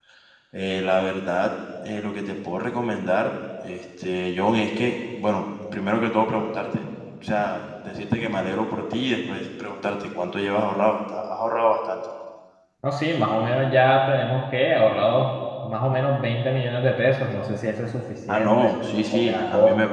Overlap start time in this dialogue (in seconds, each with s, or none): 18.3 s